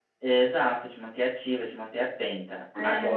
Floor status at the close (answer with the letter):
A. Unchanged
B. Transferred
A